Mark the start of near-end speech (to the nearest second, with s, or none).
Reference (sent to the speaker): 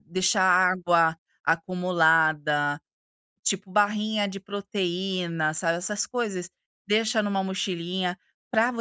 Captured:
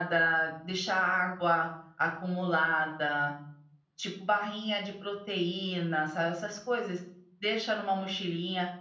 none